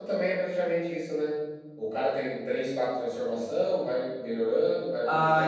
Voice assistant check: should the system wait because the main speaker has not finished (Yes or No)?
No